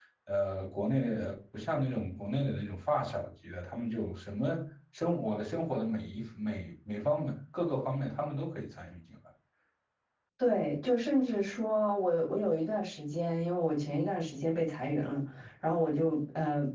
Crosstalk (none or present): none